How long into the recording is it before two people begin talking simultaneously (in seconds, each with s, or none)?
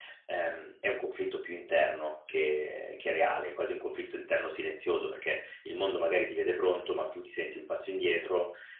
none